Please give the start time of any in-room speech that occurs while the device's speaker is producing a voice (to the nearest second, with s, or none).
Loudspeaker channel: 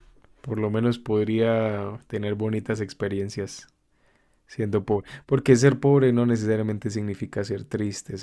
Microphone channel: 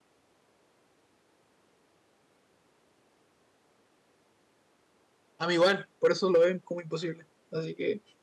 5 s